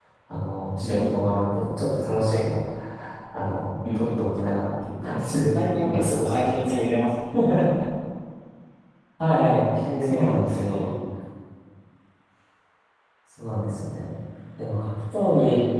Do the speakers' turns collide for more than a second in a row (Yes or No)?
Yes